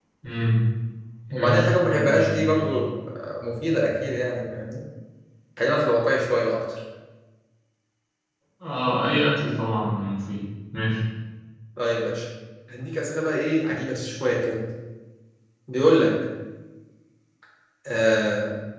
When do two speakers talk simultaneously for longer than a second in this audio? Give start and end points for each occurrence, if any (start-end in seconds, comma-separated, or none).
1.3-2.8